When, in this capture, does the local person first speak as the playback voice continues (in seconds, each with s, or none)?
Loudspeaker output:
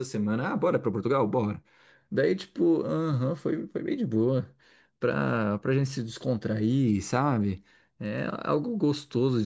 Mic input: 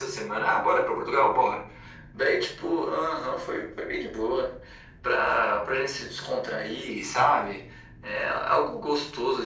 none